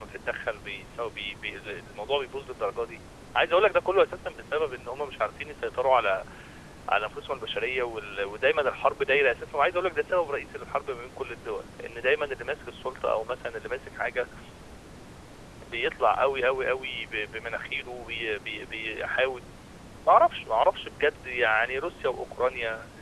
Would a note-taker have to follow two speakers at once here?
No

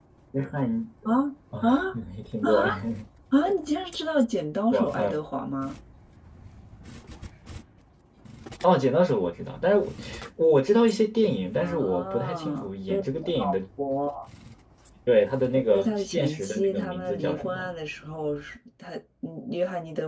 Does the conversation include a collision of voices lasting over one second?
Yes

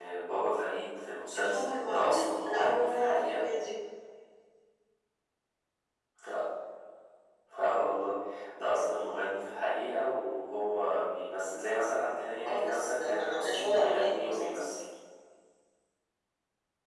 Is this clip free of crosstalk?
No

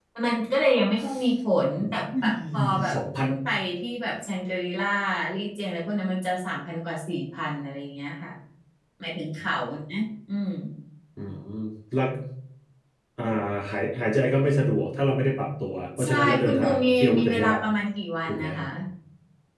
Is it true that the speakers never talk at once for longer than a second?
No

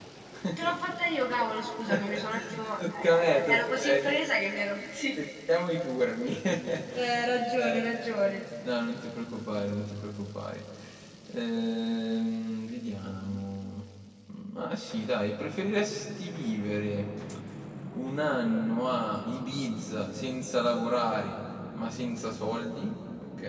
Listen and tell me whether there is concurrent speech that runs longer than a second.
Yes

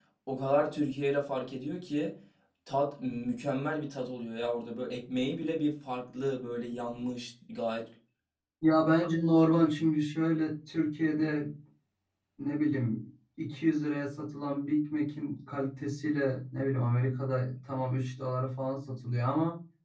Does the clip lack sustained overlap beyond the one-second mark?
Yes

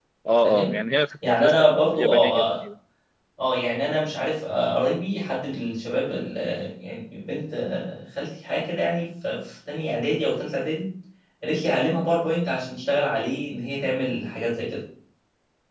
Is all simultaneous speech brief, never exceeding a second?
No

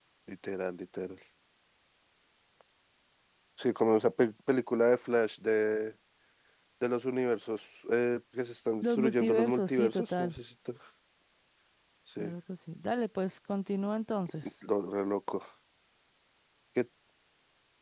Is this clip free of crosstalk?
No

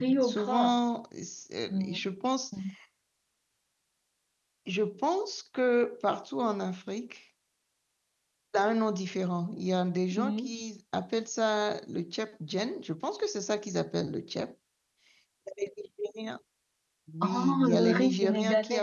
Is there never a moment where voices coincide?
No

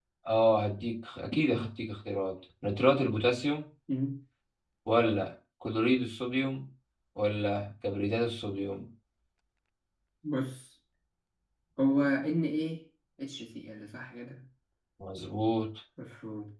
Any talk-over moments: No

